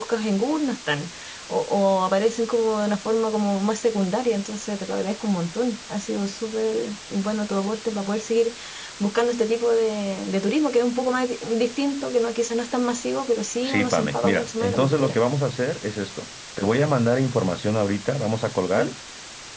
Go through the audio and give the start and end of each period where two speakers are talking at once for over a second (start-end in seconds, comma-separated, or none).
13.6-15.2